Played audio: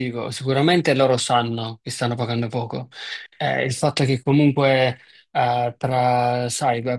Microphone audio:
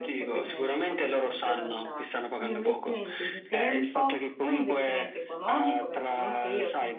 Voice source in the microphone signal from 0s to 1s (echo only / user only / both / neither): both